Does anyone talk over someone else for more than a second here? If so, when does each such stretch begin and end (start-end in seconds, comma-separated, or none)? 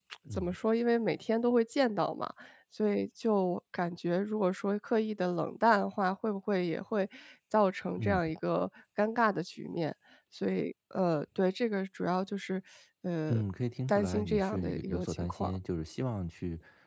13.9-15.6